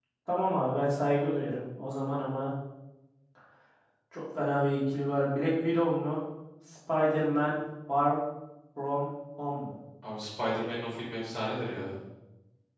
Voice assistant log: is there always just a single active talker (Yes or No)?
Yes